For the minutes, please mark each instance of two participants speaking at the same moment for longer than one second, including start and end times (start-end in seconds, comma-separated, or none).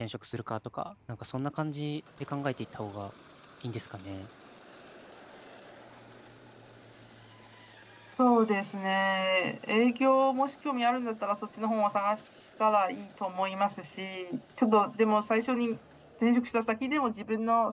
none